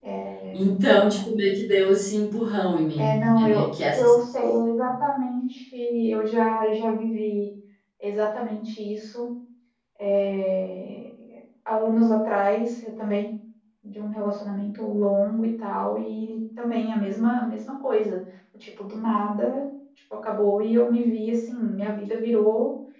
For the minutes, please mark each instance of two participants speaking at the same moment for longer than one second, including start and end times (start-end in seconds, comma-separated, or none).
3.0-4.2